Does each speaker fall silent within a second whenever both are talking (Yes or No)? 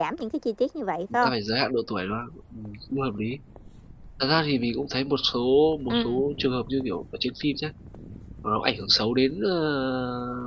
Yes